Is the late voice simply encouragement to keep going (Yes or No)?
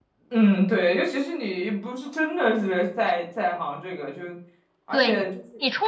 No